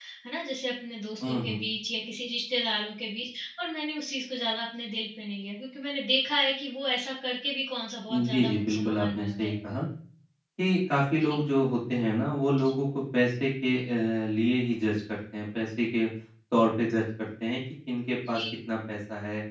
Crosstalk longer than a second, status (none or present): present